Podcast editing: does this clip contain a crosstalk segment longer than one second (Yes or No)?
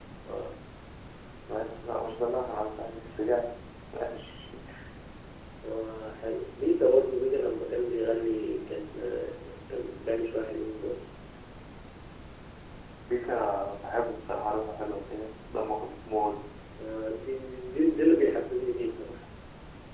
No